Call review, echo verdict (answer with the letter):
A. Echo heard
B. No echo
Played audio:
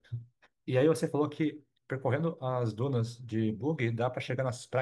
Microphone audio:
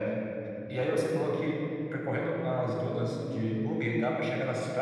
A